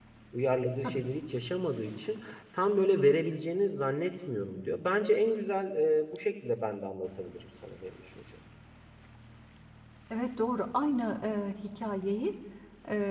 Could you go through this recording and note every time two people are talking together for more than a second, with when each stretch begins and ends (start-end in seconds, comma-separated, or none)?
none